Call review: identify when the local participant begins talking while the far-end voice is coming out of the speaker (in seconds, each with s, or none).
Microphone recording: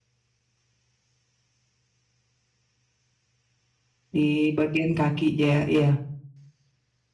4.2 s